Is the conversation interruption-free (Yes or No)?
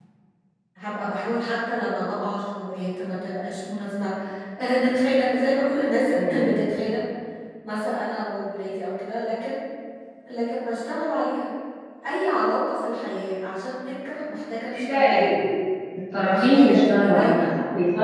No